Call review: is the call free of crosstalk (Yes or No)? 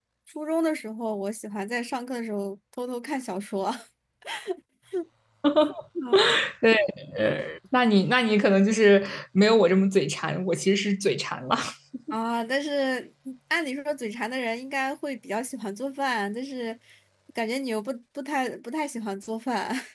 Yes